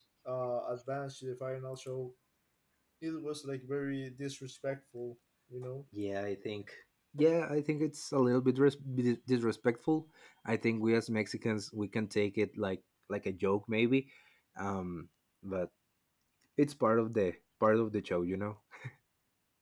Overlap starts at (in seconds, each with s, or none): none